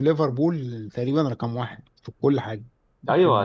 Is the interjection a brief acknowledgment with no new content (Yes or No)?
No